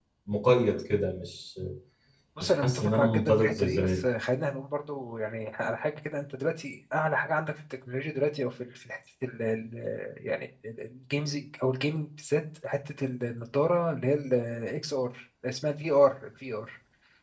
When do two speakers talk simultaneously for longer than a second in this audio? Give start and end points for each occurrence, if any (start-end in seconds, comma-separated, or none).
2.4-4.0